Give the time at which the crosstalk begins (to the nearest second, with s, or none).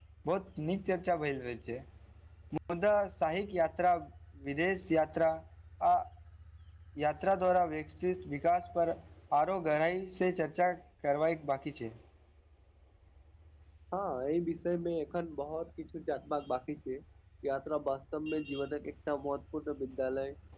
none